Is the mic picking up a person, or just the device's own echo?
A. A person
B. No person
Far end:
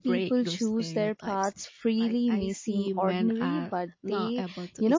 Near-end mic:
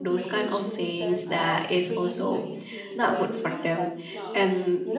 A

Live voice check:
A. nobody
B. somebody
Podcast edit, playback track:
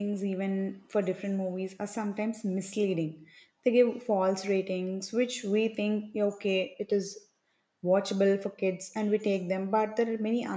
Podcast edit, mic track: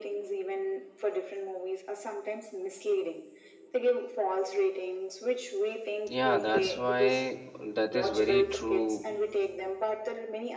B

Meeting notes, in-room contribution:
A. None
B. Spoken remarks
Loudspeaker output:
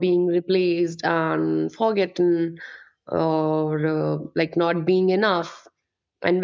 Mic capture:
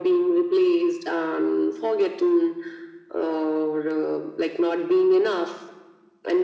A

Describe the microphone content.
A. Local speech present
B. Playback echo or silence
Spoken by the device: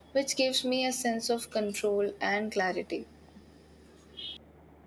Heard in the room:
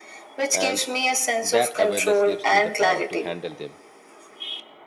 A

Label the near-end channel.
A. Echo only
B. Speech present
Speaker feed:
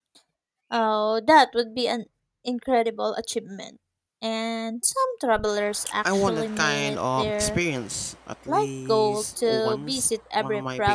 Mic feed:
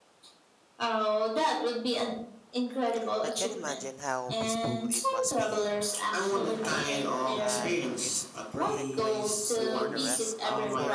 B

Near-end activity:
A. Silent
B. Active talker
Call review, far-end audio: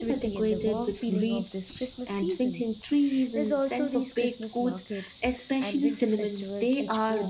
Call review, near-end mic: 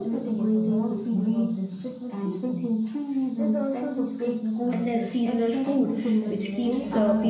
B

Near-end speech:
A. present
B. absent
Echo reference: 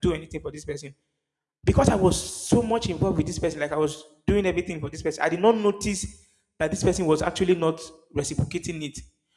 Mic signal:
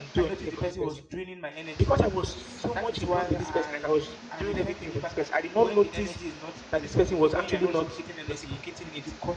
A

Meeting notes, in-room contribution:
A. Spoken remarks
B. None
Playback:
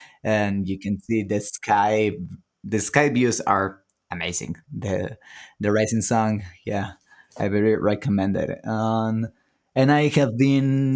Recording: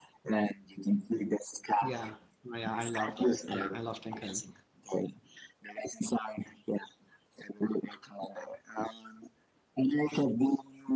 A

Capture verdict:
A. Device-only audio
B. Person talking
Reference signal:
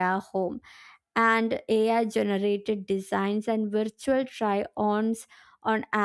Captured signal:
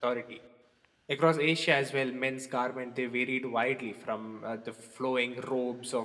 B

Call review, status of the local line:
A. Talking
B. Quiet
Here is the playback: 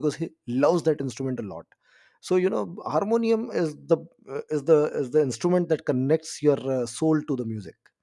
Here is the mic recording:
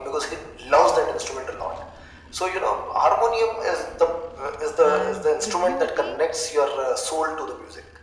A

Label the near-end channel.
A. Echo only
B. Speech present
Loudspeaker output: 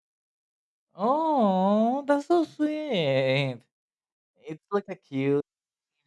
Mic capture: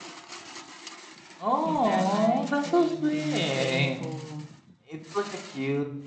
B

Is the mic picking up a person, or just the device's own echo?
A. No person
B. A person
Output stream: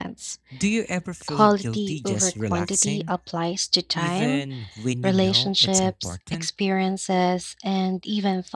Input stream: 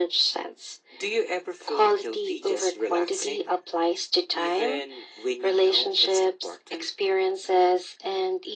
A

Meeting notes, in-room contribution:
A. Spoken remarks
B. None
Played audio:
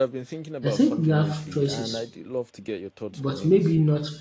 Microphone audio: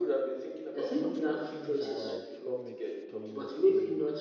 A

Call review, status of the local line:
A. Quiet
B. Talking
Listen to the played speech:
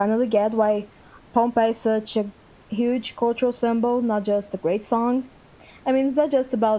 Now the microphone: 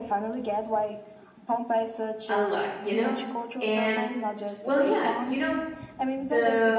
B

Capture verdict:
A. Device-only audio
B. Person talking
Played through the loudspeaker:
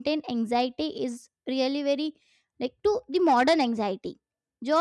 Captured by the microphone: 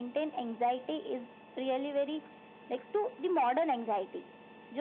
A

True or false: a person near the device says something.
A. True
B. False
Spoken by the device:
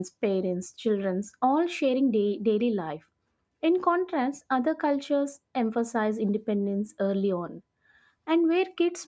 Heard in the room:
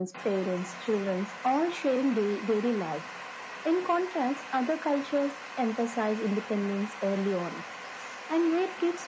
B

